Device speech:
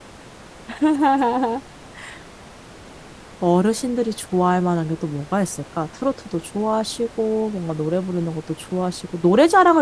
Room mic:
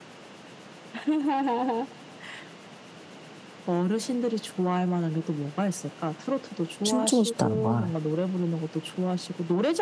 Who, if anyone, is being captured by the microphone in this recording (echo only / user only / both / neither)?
both